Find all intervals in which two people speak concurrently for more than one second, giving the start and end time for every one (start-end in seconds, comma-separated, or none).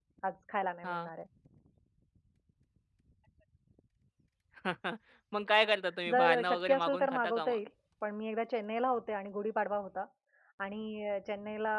6.1-7.6